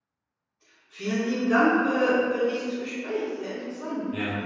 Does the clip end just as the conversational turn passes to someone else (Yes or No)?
Yes